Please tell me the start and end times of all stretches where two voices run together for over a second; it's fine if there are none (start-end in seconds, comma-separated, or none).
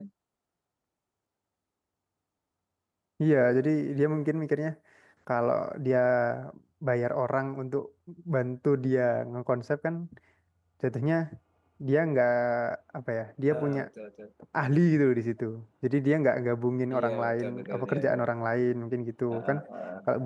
16.9-18.2